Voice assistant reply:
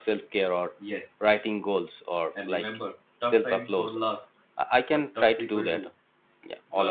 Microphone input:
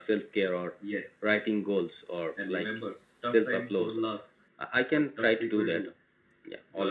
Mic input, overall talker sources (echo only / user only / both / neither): echo only